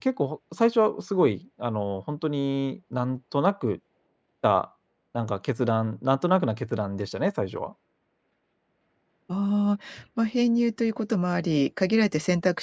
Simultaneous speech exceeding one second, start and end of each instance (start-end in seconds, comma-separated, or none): none